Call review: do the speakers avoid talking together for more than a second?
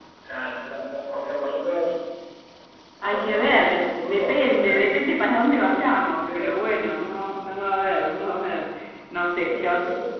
No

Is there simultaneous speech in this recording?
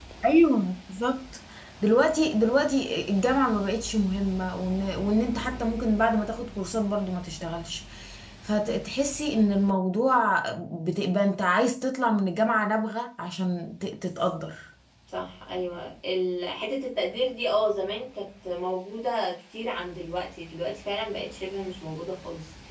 No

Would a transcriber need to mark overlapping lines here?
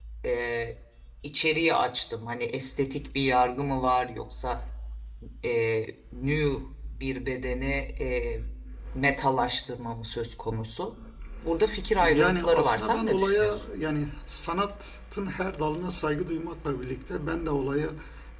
Yes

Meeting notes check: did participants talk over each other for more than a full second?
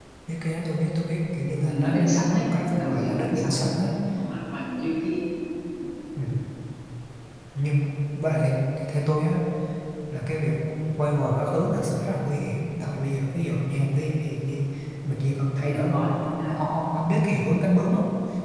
Yes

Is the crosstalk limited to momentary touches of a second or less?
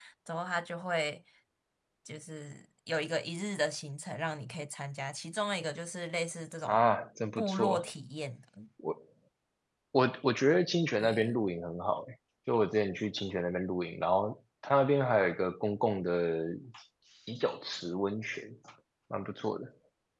Yes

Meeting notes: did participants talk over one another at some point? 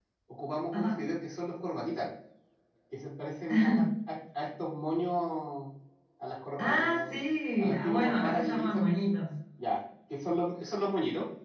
Yes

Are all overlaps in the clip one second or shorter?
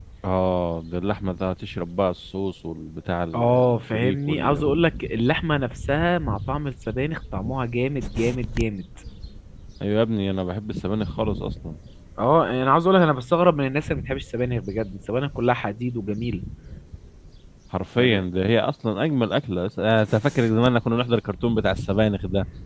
No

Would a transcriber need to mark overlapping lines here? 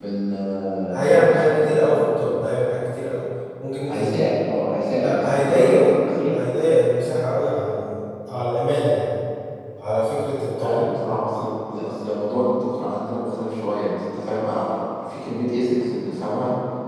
Yes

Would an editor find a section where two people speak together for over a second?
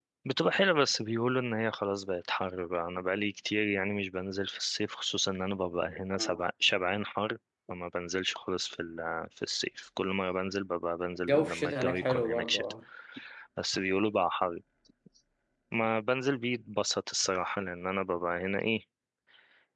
Yes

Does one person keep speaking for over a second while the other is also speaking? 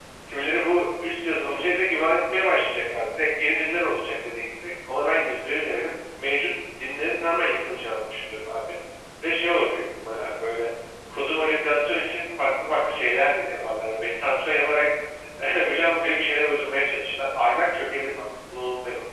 No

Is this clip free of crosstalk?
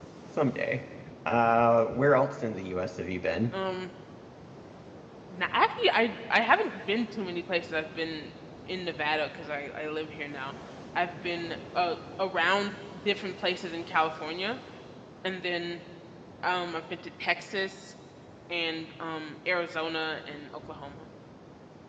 Yes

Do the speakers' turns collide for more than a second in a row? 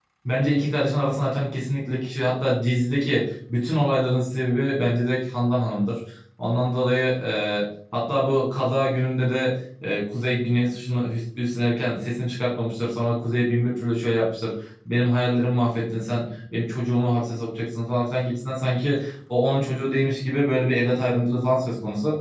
No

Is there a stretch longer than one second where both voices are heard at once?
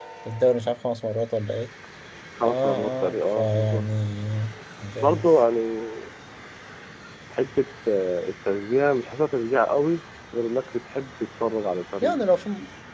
Yes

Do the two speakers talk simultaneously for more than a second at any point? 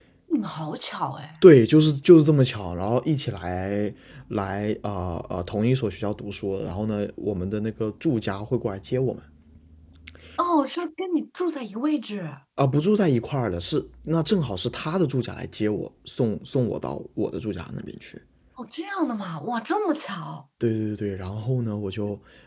No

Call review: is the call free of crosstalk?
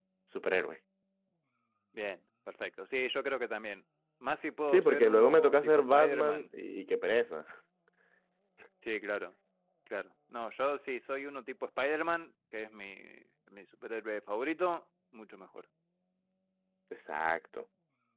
No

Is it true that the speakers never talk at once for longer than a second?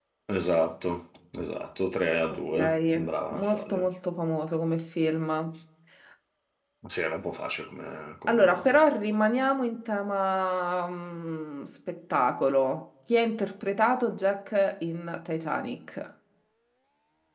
No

